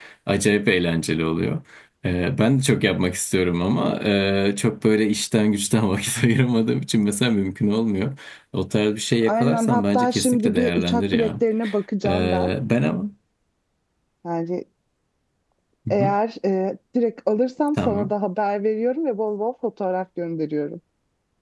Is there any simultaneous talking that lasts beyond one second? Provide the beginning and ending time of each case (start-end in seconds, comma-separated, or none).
9.2-11.3